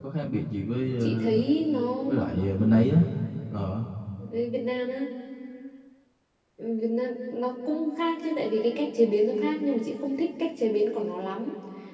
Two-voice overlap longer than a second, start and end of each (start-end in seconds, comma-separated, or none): none